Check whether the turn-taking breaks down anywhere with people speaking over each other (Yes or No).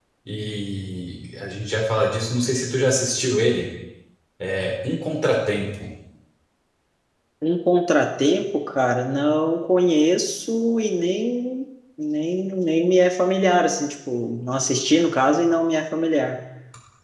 No